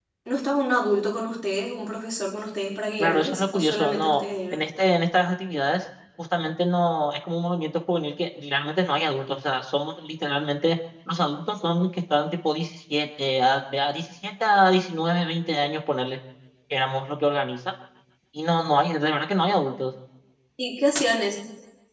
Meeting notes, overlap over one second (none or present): present